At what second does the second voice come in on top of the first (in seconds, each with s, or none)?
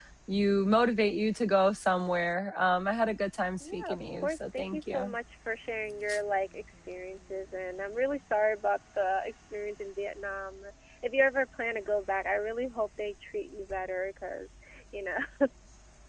3.6 s